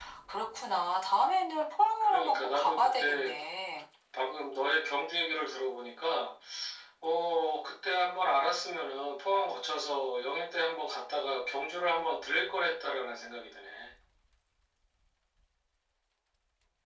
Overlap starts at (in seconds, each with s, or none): 2.0 s